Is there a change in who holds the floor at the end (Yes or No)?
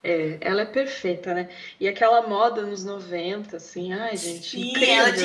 Yes